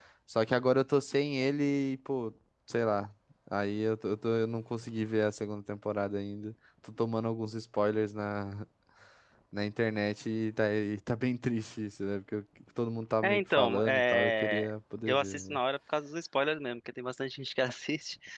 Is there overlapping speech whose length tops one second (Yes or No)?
Yes